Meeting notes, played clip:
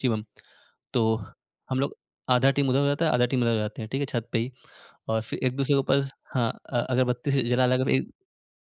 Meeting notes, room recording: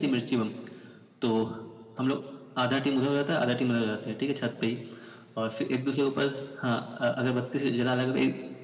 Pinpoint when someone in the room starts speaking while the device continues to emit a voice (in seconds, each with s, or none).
none